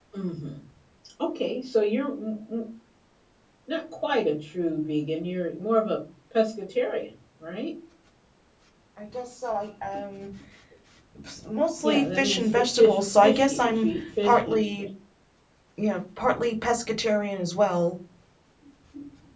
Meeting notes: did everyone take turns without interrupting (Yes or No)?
No